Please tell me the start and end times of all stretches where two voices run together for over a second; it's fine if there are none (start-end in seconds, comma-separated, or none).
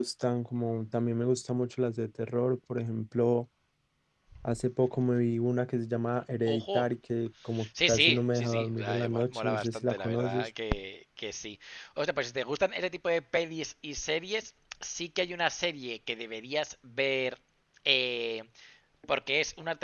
7.8-10.5